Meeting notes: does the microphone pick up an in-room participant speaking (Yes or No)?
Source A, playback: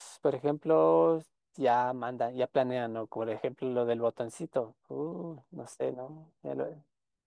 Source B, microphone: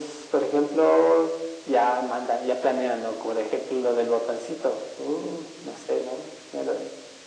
No